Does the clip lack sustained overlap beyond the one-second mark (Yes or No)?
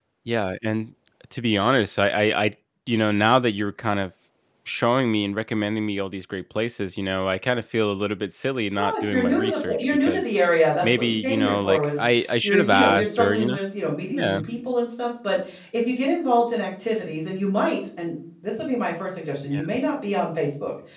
No